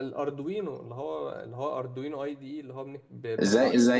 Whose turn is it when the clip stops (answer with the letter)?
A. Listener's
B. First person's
A